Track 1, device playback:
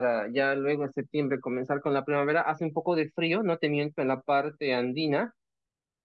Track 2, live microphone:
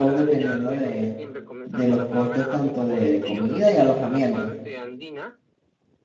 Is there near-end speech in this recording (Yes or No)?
Yes